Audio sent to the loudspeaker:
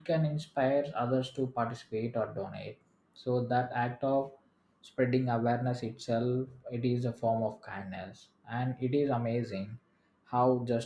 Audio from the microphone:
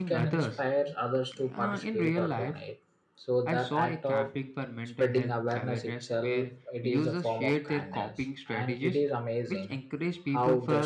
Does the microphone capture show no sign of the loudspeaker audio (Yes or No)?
No